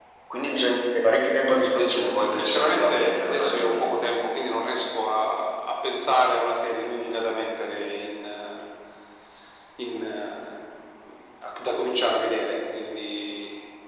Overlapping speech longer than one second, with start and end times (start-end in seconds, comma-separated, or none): 2.0-3.8